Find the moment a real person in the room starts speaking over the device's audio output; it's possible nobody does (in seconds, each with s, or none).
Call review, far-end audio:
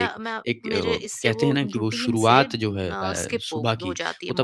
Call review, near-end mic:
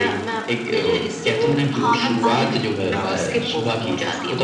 1.7 s